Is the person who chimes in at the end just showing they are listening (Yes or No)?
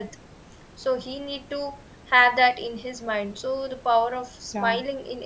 Yes